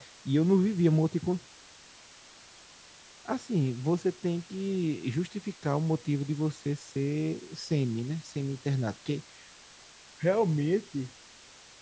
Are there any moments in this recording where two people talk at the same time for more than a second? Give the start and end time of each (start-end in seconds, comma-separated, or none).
none